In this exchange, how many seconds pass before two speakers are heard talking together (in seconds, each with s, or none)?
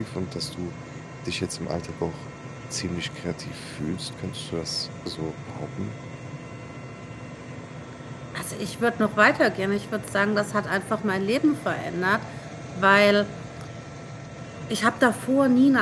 none